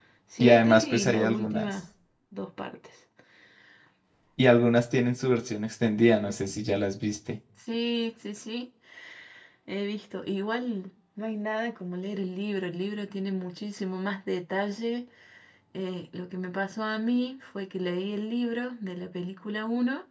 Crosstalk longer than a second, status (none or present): present